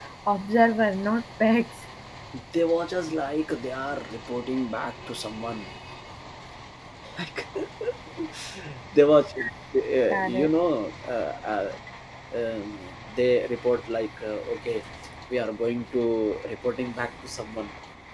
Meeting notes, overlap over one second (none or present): none